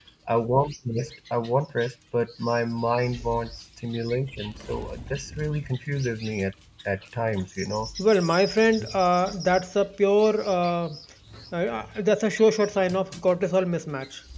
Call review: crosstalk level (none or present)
none